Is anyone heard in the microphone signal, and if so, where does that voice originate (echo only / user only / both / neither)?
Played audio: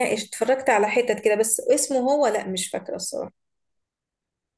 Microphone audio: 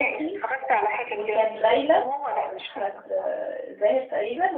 both